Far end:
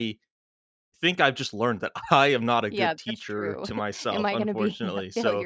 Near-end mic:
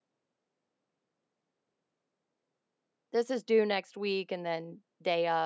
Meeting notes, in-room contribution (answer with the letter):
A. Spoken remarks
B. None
A